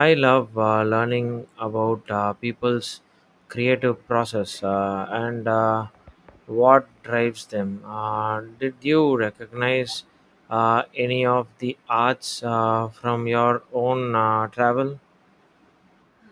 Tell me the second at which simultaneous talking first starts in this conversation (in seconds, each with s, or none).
none